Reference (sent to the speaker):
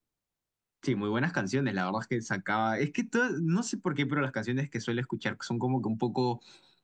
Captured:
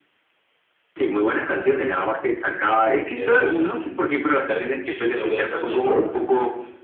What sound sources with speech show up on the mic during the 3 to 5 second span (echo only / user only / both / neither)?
both